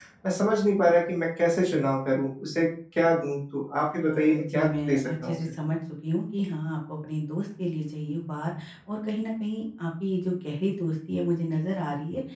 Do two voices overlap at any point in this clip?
Yes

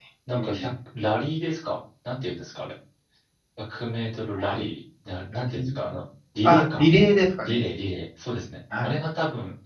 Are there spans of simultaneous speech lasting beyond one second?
No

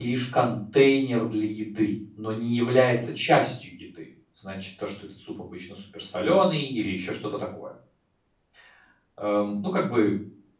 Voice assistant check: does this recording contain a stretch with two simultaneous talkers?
No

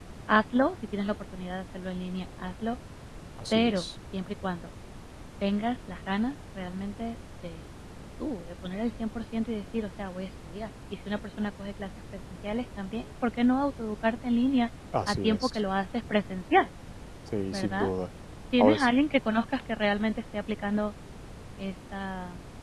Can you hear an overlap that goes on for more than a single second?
No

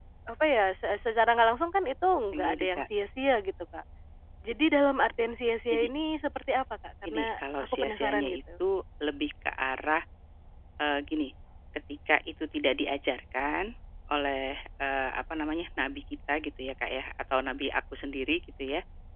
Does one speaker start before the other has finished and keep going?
Yes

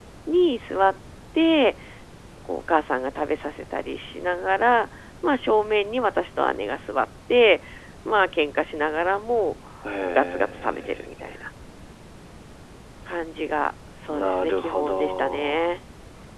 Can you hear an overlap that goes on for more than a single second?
Yes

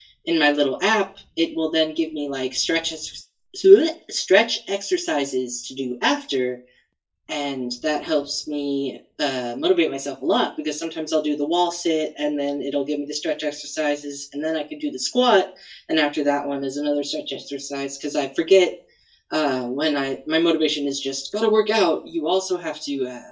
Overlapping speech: No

